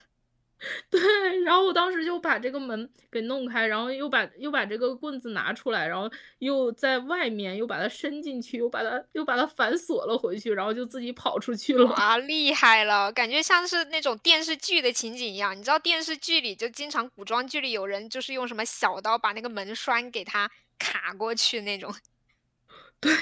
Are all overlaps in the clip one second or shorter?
Yes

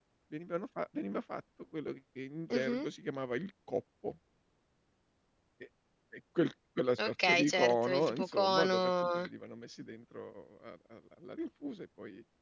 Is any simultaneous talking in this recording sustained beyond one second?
Yes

